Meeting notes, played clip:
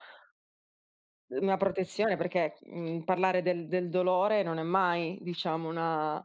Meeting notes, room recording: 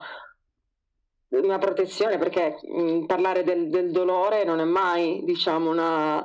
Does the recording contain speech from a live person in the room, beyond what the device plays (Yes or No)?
No